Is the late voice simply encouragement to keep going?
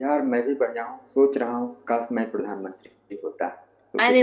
No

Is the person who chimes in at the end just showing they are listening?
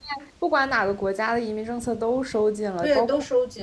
No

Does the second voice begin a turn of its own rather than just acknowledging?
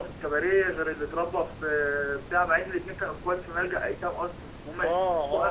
Yes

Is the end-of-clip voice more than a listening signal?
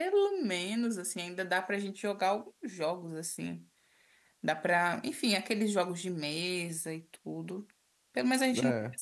No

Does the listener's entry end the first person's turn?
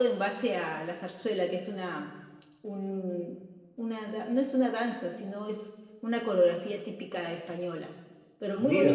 Yes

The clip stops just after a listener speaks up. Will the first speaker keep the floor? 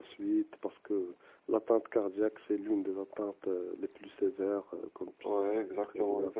No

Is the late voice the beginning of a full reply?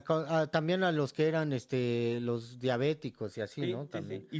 Yes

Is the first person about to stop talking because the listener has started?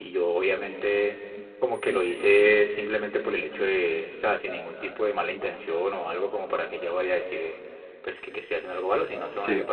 No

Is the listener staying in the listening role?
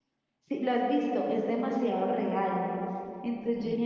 Yes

